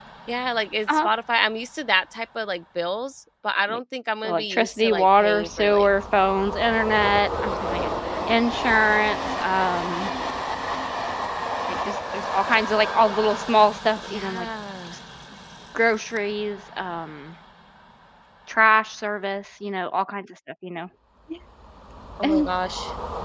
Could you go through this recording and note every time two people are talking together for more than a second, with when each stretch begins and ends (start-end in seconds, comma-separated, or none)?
4.2-5.9